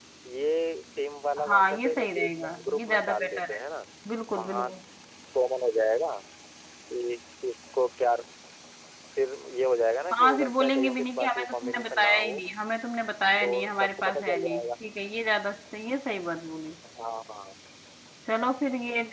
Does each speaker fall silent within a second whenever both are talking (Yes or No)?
No